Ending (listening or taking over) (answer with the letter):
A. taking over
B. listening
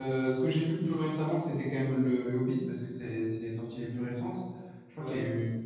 B